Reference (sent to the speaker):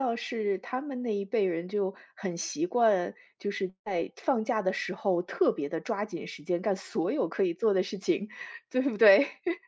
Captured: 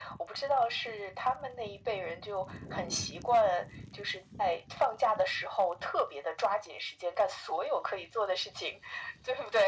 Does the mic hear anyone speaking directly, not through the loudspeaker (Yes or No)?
No